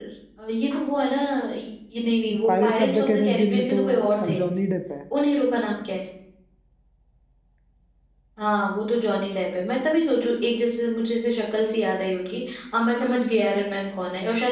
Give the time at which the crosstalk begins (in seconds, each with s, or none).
2.3 s